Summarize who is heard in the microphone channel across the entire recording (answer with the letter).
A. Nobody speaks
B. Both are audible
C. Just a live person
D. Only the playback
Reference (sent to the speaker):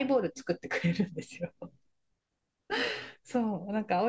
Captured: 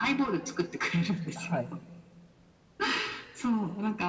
B